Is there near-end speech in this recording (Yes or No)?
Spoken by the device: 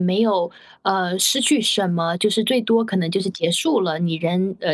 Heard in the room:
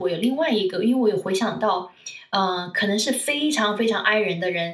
Yes